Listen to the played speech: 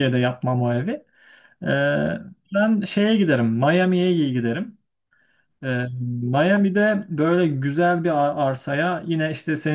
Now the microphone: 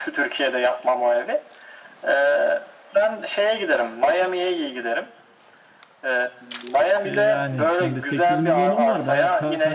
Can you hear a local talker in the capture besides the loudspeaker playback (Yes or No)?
Yes